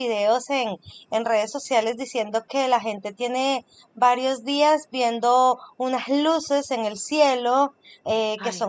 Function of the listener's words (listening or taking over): listening